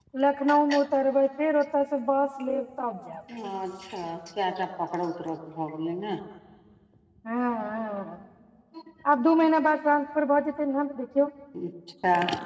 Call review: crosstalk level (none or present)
none